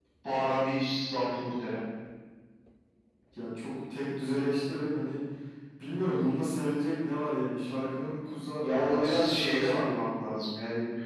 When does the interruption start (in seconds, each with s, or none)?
8.6 s